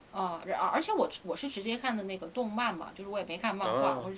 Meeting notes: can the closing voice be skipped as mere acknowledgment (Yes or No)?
Yes